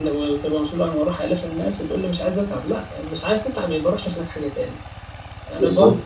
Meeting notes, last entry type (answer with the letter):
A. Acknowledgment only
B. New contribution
A